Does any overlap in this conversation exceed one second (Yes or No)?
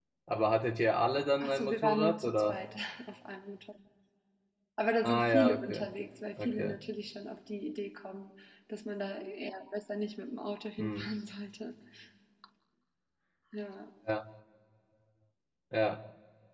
Yes